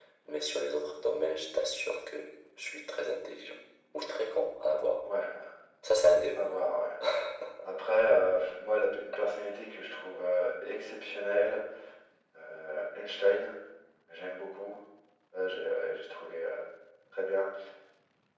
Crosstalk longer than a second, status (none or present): none